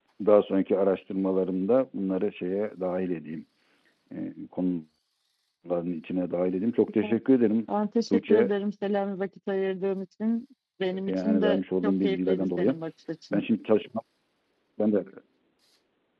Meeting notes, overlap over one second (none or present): present